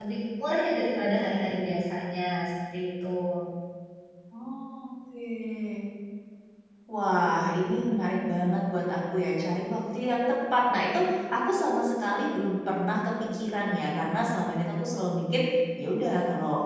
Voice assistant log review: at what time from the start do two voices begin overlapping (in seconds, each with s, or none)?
none